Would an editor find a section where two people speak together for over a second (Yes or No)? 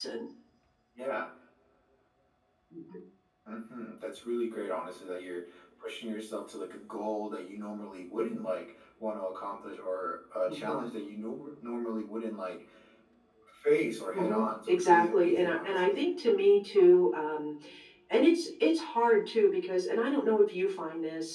Yes